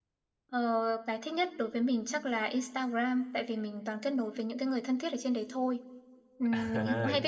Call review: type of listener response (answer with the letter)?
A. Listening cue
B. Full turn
B